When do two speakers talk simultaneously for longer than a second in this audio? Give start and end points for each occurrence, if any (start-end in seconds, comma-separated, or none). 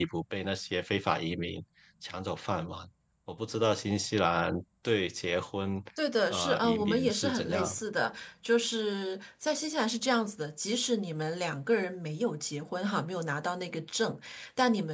6.3-7.8